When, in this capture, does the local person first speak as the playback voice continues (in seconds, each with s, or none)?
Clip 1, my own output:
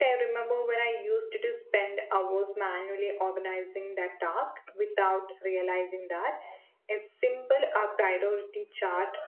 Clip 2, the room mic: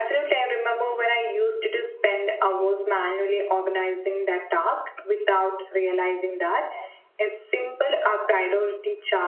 none